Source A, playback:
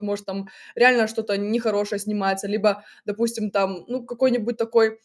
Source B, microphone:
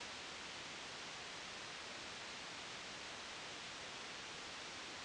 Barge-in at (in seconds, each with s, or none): none